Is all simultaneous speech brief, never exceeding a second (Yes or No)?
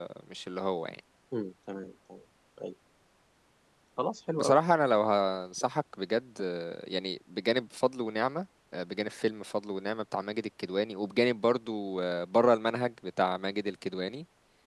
Yes